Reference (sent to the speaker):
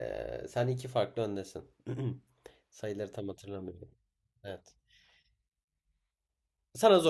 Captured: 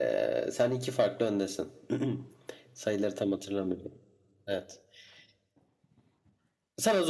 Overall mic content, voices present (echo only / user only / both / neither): echo only